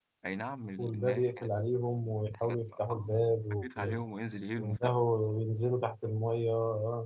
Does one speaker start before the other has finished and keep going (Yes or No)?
Yes